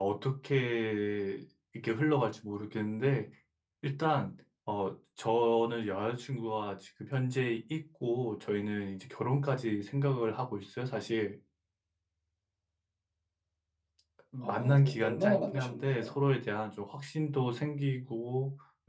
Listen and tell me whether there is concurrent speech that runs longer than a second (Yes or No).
Yes